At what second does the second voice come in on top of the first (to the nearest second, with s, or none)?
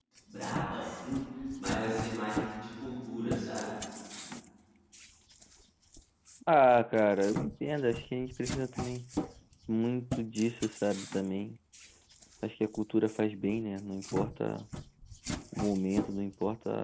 none